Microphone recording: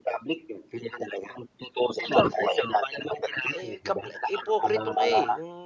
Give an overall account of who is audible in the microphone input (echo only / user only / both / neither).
both